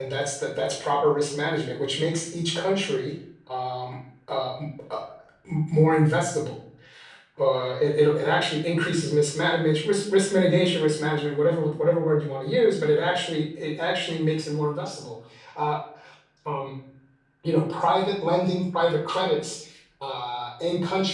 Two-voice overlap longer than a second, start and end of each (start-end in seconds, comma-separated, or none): none